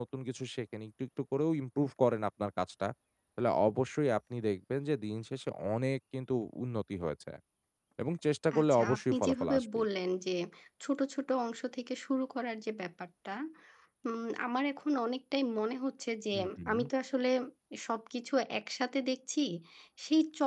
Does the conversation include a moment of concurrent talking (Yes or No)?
Yes